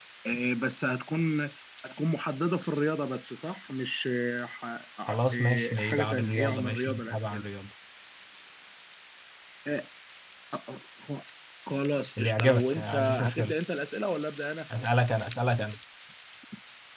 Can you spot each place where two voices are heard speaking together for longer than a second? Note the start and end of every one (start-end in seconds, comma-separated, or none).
5.1-7.4, 12.2-13.6